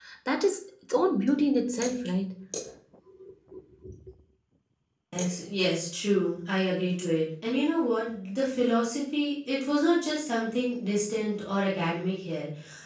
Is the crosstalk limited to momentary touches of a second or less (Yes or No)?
Yes